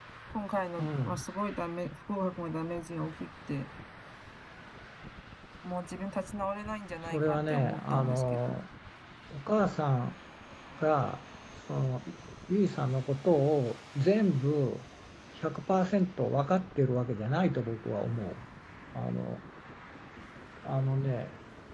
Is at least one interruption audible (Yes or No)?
Yes